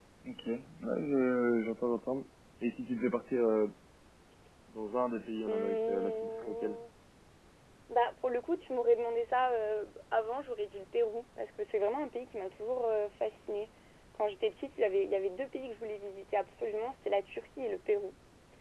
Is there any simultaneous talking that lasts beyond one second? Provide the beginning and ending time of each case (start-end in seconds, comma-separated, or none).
5.5-6.8